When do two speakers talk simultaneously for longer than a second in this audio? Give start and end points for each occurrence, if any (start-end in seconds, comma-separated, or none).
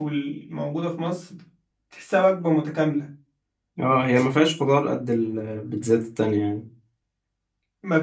none